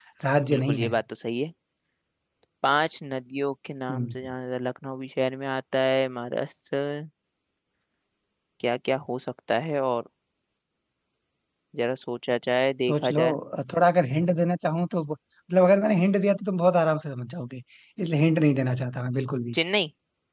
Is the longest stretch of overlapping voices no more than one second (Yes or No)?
Yes